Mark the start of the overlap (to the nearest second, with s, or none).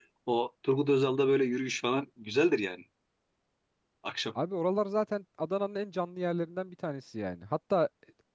none